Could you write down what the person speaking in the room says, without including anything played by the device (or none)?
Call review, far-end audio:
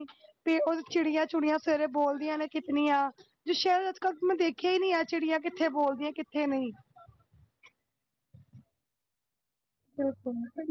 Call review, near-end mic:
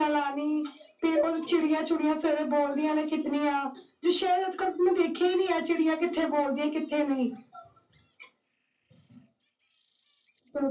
none